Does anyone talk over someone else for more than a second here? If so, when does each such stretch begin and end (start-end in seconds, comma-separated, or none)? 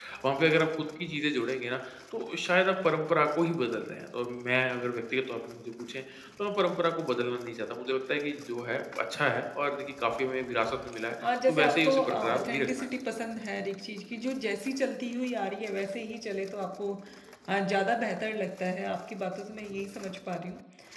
11.5-12.9